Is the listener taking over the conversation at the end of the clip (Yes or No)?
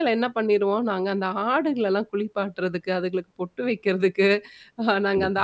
No